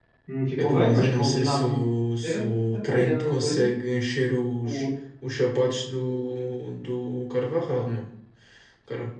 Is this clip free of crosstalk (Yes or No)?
No